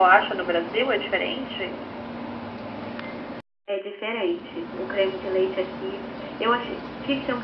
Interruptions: none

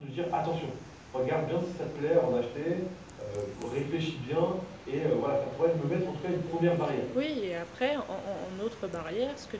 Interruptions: none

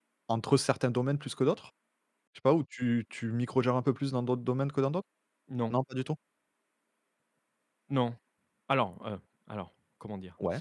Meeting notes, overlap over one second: none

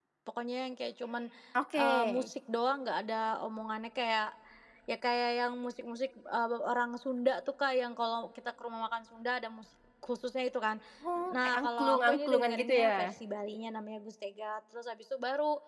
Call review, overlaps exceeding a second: present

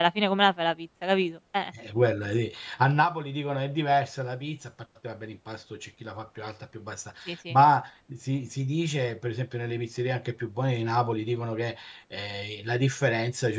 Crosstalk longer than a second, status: none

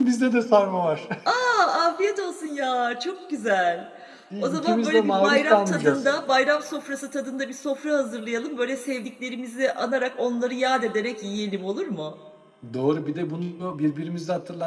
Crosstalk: present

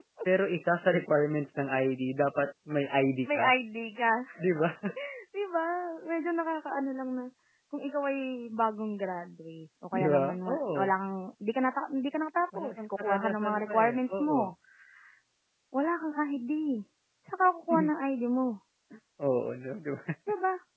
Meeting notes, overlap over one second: present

